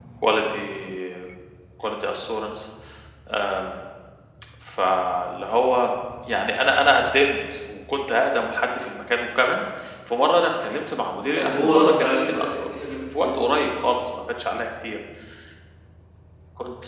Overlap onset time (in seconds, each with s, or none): 11.3 s